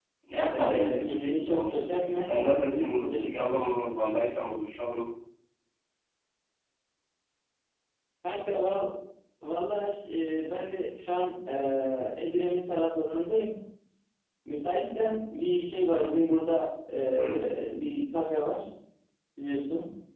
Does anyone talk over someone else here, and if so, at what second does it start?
0.5 s

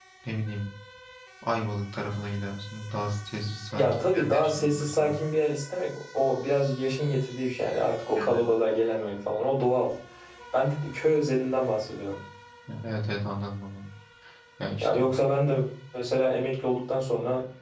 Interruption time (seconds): 3.8 s

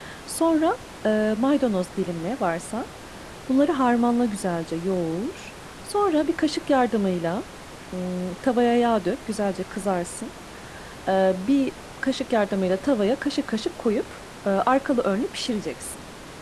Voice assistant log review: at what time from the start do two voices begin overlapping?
none

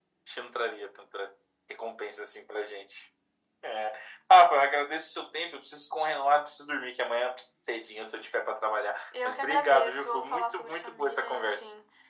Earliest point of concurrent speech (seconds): 9.1 s

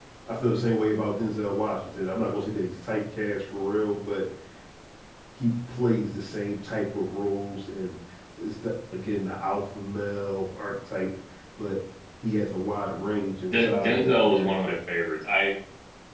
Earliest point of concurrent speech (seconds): 13.5 s

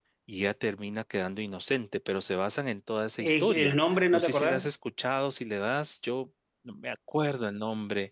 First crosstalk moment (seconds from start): 3.2 s

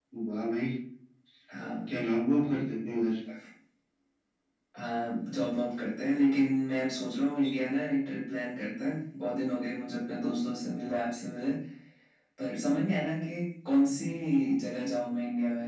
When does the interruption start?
none

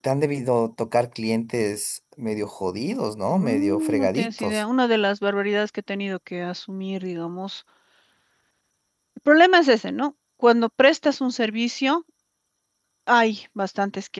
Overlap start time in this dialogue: 3.3 s

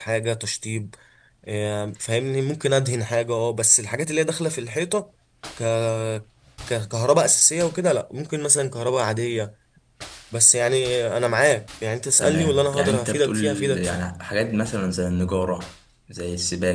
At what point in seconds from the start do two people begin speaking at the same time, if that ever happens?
12.2 s

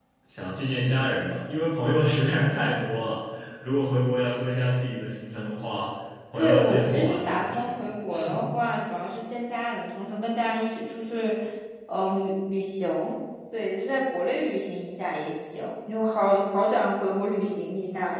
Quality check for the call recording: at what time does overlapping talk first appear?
6.3 s

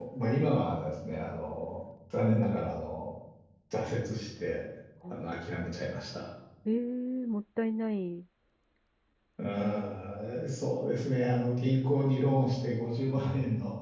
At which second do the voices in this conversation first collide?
none

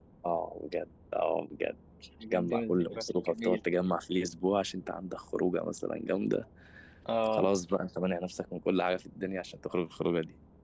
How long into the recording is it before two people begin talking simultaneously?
2.3 s

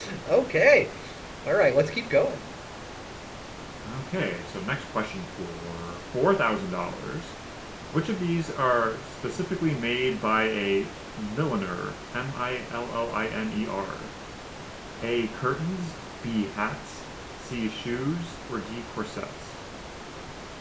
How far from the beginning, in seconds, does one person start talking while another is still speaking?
none

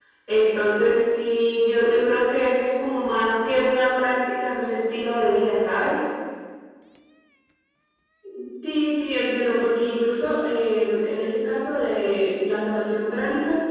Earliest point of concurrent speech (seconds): none

